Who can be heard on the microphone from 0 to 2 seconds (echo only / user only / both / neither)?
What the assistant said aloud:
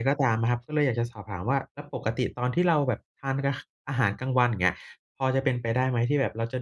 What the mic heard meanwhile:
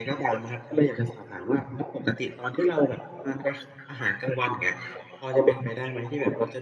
echo only